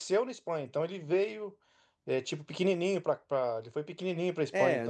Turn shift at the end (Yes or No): Yes